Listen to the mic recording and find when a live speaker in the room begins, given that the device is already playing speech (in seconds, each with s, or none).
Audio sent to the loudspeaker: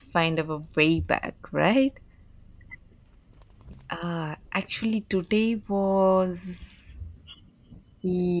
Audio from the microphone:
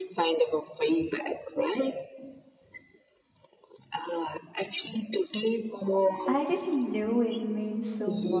6.2 s